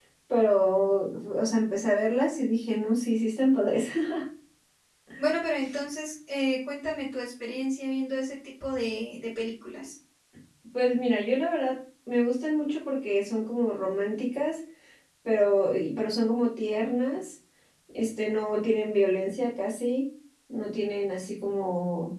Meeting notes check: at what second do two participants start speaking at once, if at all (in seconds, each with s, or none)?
none